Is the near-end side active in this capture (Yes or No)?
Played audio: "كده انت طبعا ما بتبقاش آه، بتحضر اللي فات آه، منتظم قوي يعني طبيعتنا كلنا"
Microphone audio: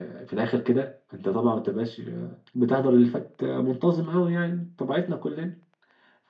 No